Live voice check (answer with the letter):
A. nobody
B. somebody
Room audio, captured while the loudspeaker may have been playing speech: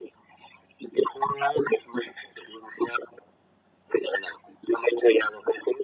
A